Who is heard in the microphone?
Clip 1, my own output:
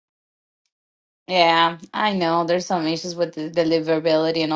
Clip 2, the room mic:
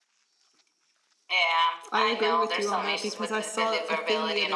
both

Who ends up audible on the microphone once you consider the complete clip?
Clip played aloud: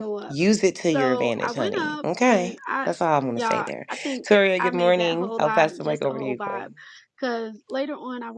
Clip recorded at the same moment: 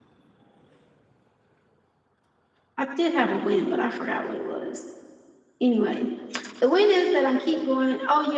user only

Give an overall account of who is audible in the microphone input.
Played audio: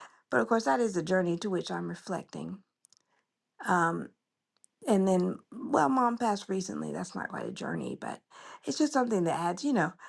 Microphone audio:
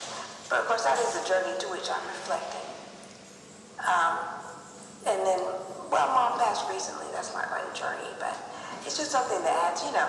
echo only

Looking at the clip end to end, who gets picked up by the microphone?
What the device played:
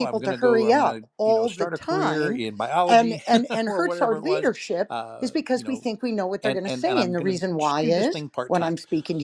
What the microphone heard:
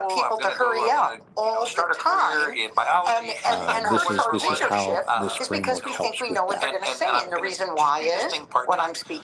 both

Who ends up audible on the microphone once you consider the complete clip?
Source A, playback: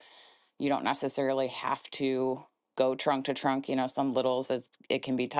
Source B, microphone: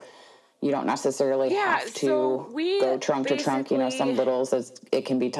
both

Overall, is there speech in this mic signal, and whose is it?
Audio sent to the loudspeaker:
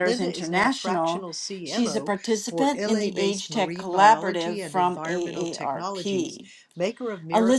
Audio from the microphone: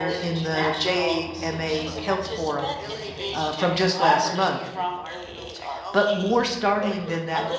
both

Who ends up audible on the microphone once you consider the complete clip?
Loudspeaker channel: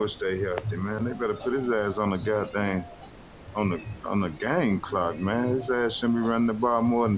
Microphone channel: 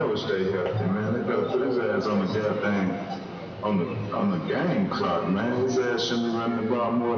both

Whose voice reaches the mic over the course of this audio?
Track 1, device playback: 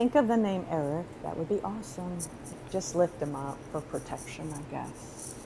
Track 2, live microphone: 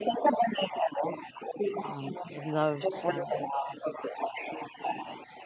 both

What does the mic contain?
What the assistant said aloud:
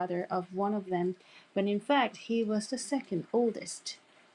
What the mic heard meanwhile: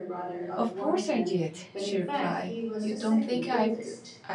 both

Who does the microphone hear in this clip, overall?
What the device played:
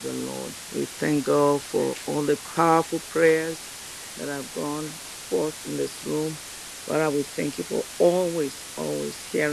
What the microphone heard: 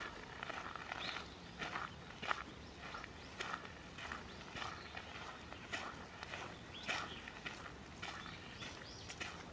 neither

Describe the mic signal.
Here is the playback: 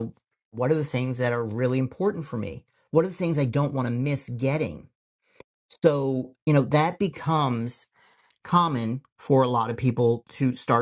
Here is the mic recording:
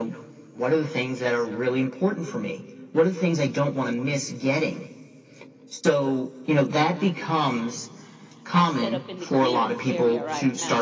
both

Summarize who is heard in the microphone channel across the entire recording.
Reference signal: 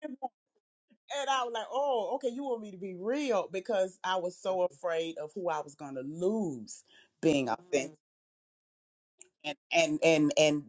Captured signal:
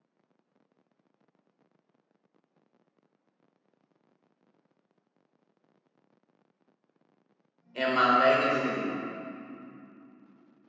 user only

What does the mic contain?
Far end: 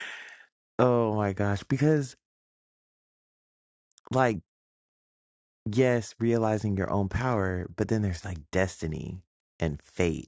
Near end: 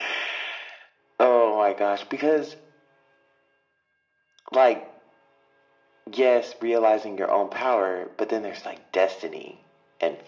echo only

